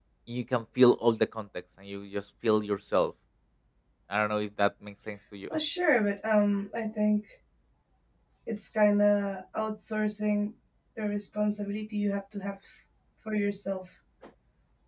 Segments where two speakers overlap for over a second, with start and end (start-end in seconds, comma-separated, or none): none